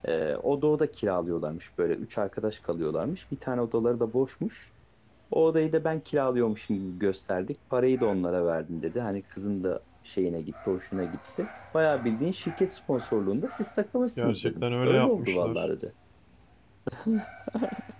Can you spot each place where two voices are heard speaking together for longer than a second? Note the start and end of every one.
14.2-15.7

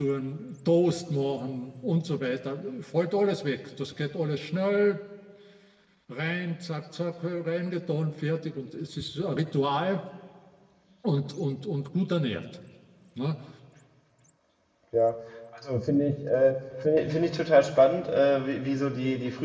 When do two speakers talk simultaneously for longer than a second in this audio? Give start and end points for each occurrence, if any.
none

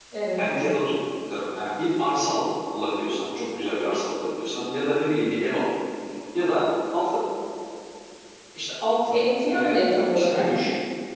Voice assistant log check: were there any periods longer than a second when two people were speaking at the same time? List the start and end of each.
9.1-10.5

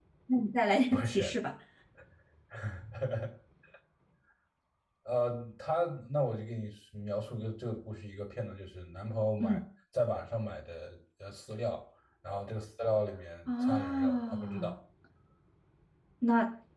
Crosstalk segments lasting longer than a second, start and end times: 13.5-14.7

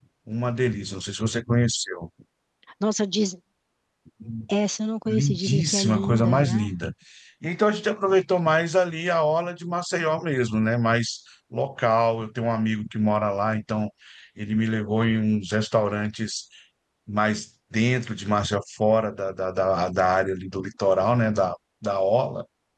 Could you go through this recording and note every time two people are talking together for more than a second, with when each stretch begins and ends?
5.1-6.7

